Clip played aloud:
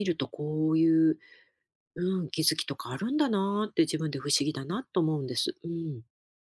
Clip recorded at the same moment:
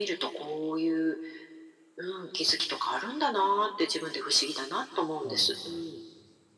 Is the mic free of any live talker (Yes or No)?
No